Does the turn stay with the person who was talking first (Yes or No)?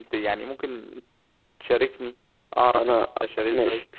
No